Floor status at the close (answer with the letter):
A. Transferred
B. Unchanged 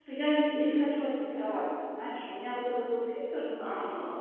B